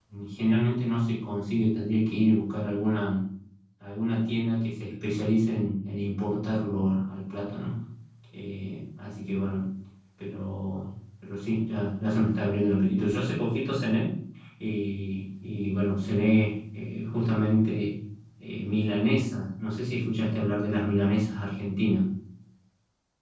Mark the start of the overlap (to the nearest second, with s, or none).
none